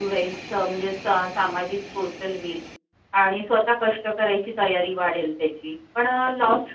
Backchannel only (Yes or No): Yes